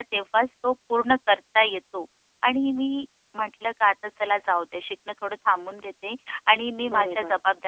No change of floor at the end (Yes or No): Yes